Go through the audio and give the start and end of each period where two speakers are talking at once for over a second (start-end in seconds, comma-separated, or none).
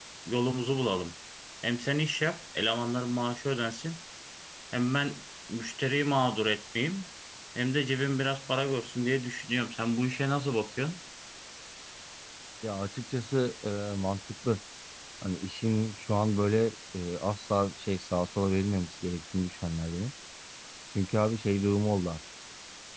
none